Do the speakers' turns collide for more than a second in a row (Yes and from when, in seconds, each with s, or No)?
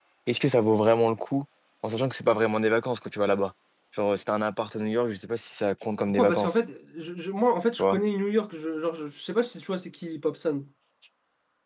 No